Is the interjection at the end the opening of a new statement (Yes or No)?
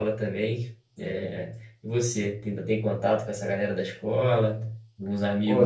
Yes